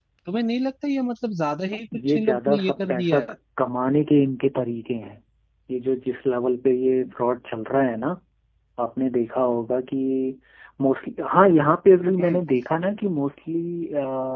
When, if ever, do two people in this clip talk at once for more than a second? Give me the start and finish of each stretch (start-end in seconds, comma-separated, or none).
2.0-3.3